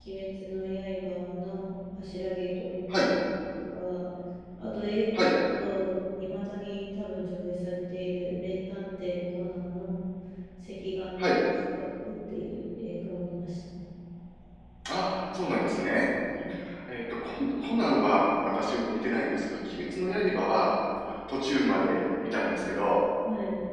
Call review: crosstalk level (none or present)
none